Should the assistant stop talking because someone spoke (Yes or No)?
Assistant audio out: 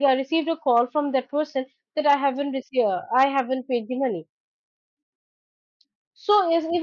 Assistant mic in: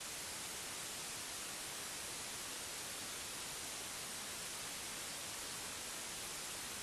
No